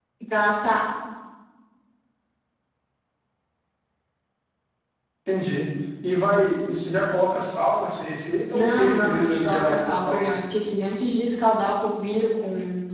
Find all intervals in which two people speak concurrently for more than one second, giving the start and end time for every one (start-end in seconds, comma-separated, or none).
8.5-10.3